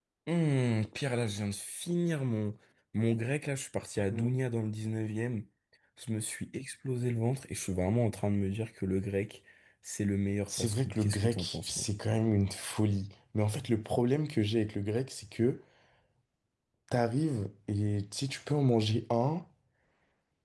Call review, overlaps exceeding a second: present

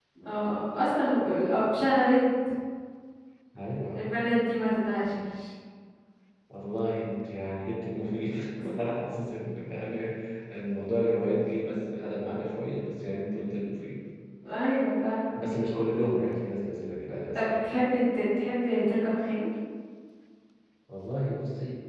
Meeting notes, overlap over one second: none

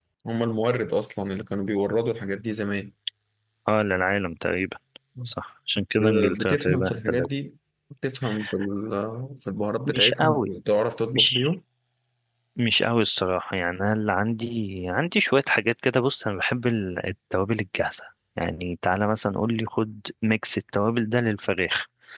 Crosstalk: present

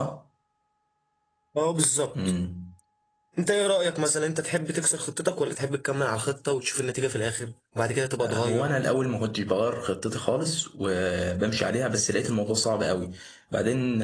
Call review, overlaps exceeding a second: none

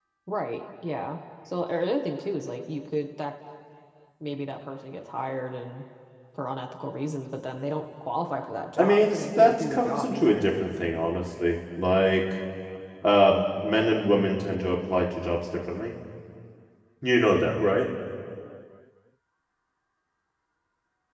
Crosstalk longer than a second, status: present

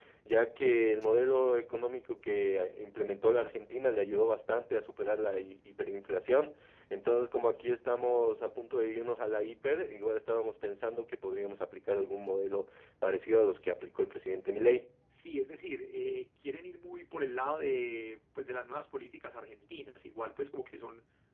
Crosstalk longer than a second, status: none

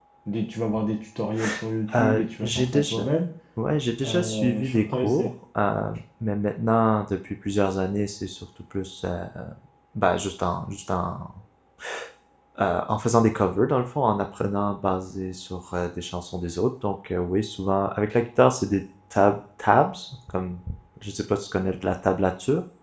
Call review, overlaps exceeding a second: present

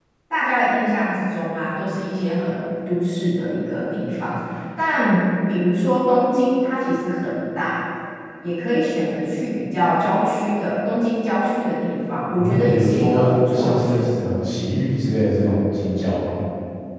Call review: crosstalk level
present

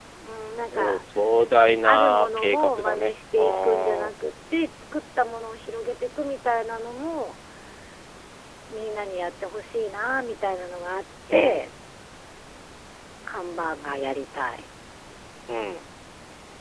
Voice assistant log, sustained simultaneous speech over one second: present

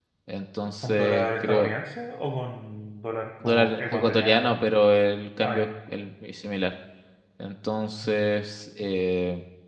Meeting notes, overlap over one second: present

